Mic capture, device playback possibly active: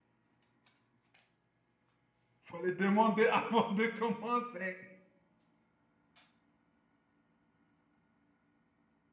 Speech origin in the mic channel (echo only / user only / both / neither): user only